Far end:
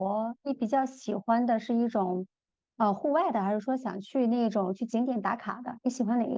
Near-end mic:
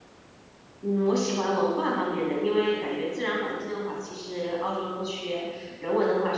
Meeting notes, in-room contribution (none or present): present